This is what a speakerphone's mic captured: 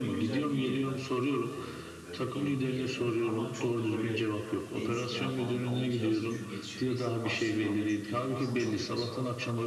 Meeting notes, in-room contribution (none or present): present